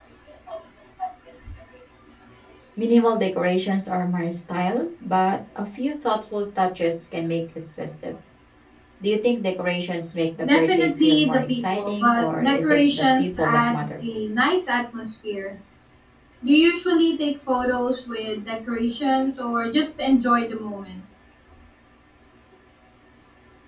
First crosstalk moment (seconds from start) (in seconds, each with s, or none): 10.4 s